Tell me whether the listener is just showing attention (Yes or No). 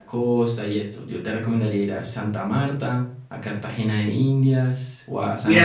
No